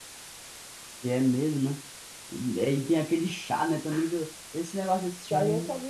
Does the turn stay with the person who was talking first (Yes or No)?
Yes